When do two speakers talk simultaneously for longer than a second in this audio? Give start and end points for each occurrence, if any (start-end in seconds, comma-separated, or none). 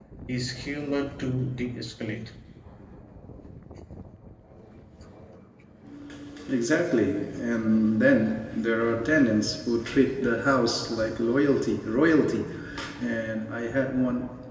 none